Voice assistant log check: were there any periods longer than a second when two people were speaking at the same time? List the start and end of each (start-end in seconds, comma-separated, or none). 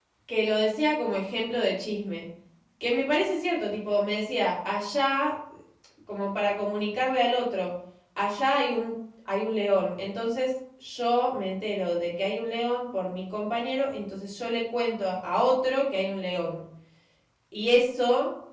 none